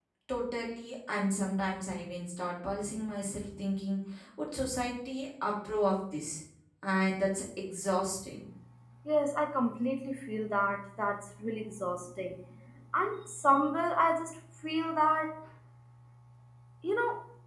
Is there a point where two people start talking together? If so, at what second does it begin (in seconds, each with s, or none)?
none